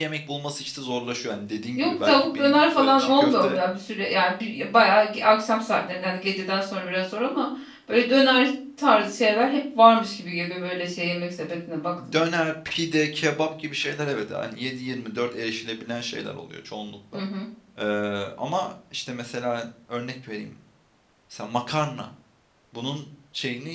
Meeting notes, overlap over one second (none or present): present